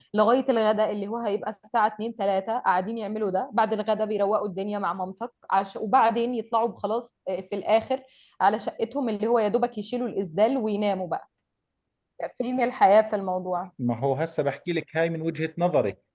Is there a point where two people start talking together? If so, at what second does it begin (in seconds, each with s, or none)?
none